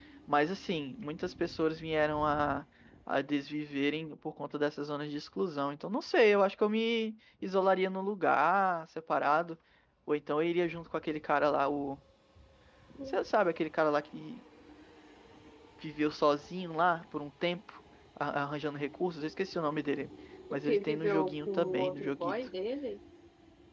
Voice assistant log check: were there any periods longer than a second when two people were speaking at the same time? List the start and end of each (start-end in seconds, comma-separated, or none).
20.5-22.4